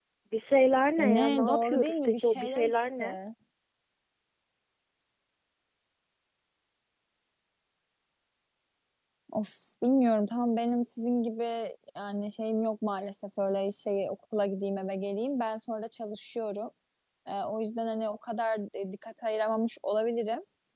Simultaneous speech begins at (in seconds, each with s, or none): 1.0 s